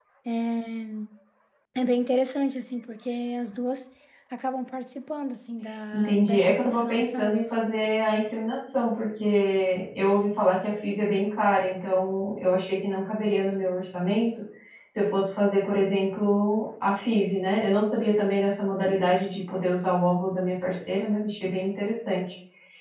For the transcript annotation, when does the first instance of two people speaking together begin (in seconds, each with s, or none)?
5.9 s